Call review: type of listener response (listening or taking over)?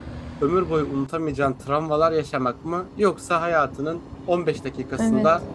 listening